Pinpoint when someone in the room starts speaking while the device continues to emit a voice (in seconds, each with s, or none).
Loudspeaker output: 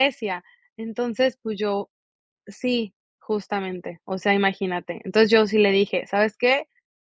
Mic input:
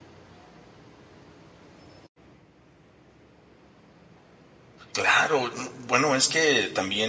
4.9 s